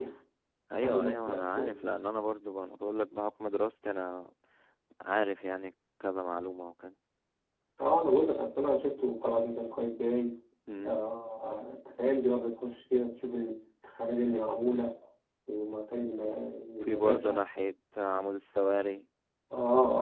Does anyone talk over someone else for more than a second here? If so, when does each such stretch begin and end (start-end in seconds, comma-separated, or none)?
none